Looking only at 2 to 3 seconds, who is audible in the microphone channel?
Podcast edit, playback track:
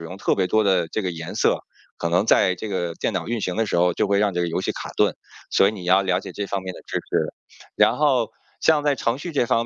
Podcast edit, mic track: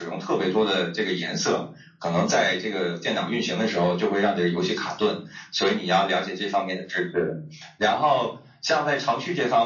echo only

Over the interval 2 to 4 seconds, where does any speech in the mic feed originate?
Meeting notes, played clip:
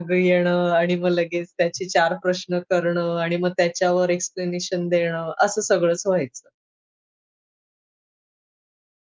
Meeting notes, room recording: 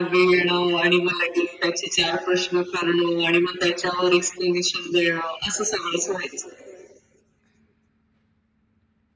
echo only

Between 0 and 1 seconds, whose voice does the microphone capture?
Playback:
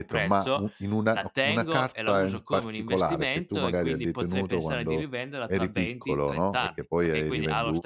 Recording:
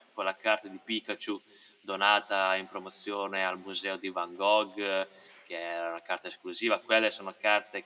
user only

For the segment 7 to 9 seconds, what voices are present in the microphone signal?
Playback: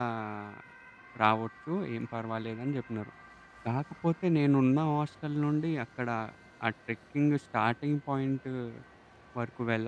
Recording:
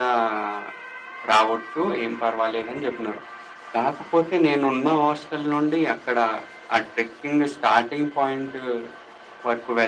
echo only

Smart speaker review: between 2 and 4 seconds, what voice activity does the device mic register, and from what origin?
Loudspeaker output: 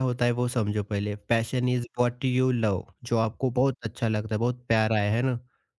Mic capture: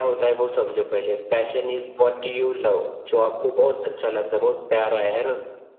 echo only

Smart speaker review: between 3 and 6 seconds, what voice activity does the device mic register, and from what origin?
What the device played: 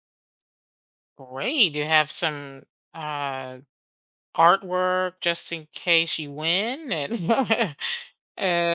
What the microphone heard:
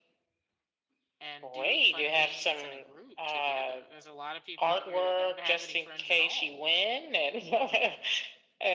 both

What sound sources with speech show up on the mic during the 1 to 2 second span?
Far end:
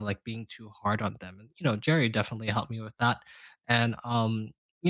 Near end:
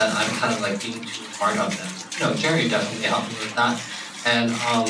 echo only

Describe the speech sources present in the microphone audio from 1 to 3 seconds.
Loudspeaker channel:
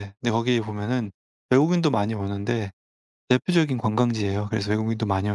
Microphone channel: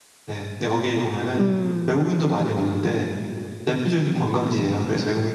both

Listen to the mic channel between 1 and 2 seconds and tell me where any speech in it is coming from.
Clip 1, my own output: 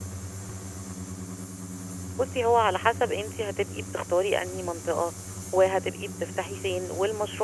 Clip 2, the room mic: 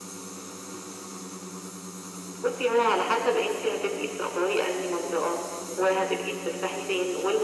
neither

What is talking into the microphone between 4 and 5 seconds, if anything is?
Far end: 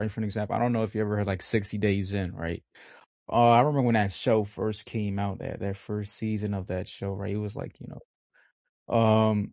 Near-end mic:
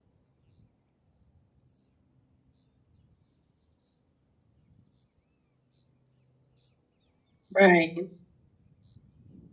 neither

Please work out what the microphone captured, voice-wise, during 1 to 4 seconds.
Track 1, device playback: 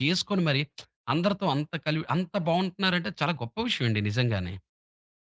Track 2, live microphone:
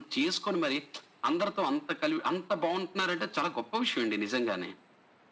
echo only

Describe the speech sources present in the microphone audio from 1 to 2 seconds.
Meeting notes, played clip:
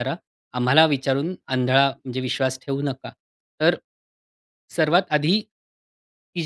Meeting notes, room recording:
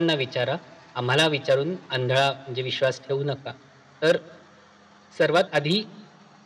echo only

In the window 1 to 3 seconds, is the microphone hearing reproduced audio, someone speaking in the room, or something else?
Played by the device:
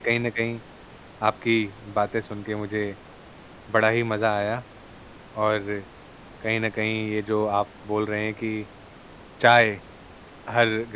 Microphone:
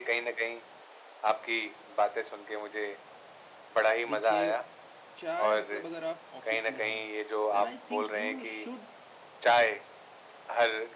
echo only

